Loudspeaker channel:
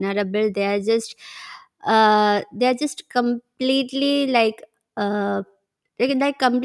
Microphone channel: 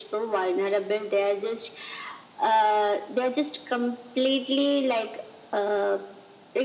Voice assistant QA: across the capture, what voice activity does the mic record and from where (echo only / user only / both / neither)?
echo only